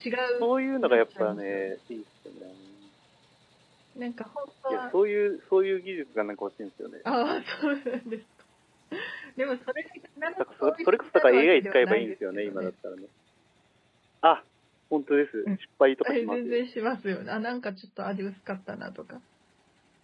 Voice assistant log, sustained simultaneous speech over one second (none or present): present